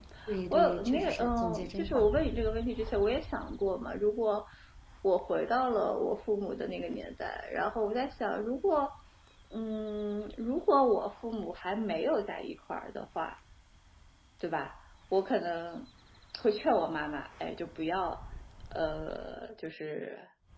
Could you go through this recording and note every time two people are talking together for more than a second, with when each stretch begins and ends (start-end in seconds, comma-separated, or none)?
0.5-2.1